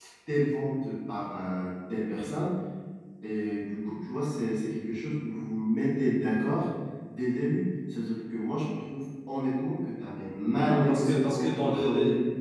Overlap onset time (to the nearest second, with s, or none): 11 s